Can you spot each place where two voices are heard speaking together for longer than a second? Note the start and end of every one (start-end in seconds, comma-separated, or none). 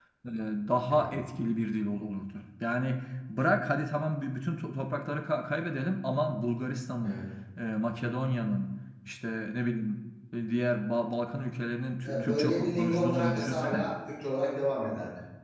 12.0-13.8